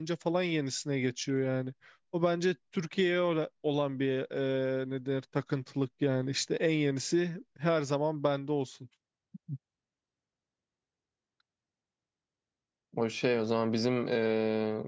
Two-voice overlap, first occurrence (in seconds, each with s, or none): none